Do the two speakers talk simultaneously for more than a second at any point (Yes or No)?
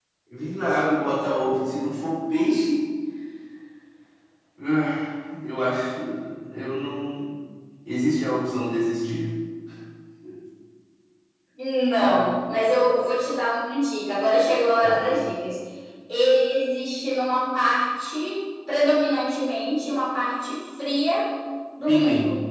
No